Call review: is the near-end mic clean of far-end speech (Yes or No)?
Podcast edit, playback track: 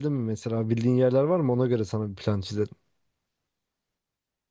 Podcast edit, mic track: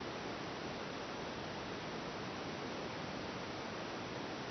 Yes